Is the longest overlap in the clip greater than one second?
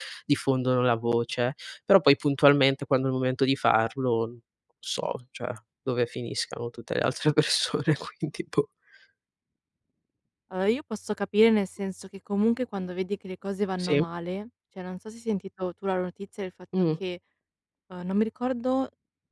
No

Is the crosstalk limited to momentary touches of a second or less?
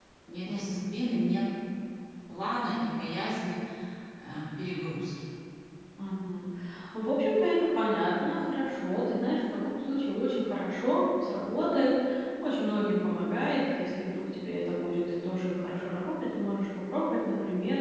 Yes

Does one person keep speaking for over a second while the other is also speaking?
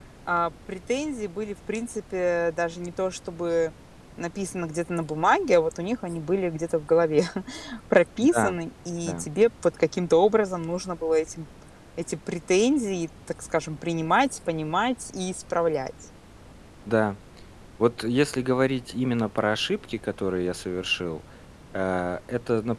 No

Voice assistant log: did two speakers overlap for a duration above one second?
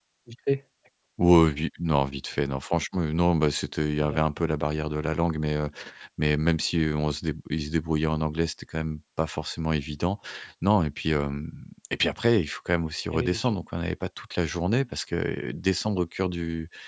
No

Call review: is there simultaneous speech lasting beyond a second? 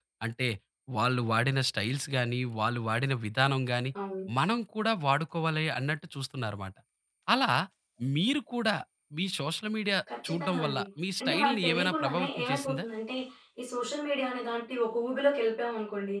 Yes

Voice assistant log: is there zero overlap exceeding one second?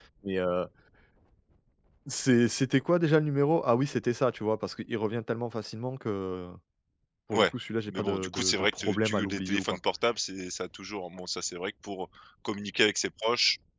No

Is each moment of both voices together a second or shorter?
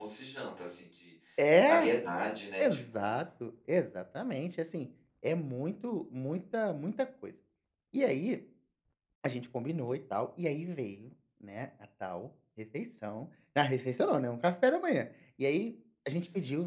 Yes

